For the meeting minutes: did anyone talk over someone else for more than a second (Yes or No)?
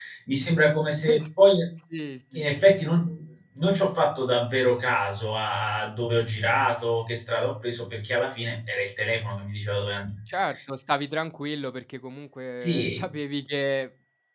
No